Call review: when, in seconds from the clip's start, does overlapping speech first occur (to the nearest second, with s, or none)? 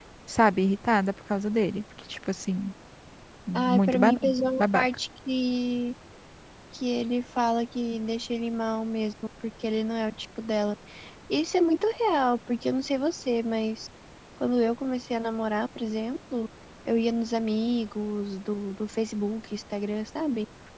4 s